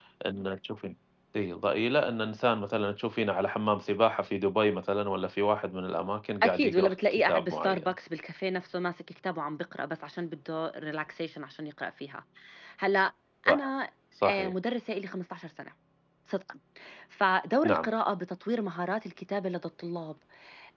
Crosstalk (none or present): present